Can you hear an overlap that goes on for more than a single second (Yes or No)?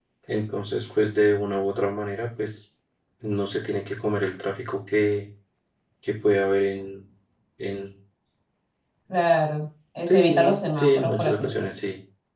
Yes